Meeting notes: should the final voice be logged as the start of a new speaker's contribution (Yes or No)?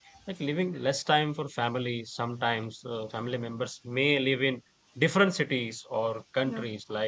No